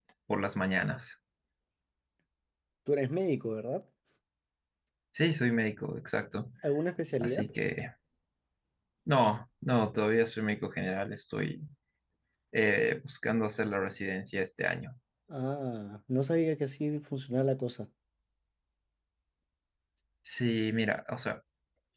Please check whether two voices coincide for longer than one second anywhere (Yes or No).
No